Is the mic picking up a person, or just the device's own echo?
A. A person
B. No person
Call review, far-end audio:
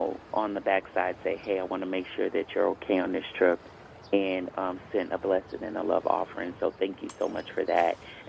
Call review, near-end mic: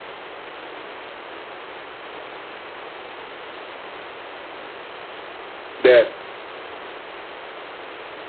A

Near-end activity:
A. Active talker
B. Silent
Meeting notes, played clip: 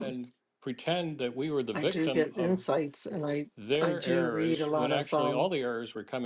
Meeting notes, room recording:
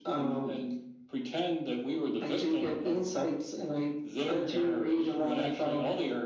B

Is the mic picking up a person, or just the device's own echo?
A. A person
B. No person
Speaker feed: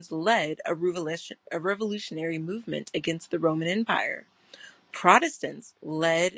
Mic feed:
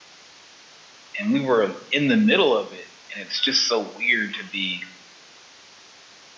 A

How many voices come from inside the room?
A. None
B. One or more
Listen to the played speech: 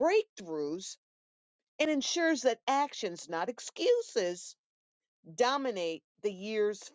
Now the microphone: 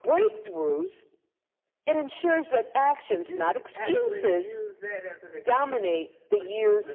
B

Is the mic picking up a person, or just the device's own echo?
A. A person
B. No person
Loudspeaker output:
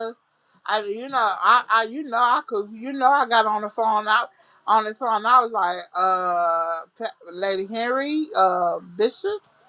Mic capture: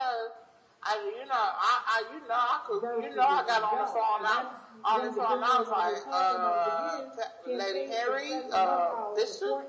A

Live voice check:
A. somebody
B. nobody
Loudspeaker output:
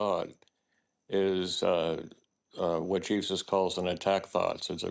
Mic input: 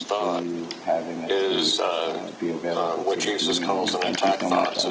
A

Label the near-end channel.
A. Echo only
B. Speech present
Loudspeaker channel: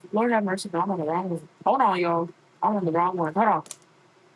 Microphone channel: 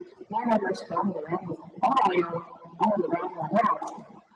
A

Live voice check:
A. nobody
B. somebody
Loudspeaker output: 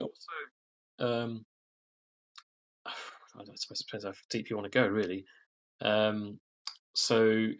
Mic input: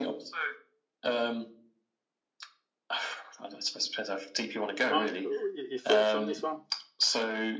B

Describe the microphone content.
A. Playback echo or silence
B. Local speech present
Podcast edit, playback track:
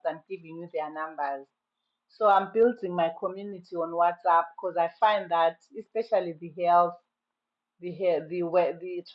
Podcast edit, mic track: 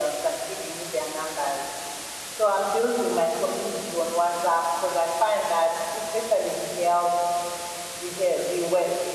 A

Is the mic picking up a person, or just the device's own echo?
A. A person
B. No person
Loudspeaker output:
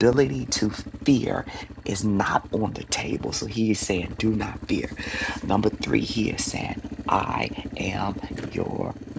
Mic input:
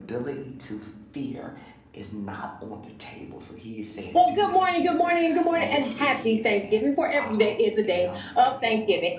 A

